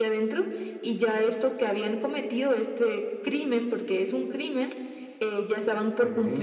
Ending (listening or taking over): listening